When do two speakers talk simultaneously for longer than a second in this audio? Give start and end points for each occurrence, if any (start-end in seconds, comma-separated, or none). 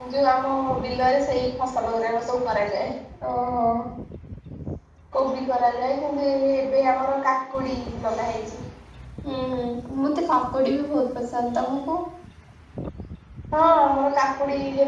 none